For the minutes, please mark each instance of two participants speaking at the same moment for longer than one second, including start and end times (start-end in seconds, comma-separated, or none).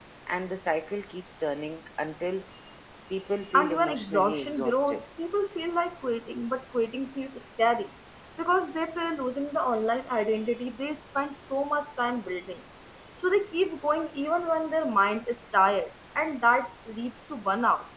3.5-5.0